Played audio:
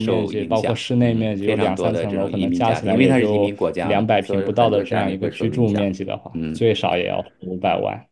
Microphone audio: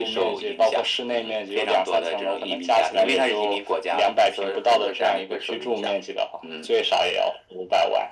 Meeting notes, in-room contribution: none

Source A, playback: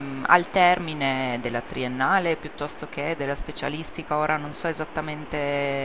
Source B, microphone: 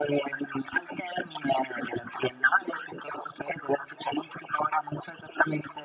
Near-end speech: none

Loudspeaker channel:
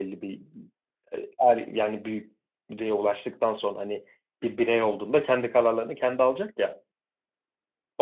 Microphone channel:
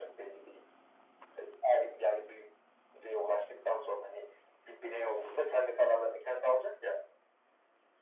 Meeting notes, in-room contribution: none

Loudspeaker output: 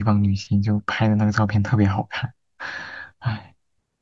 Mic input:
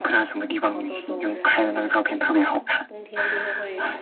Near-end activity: present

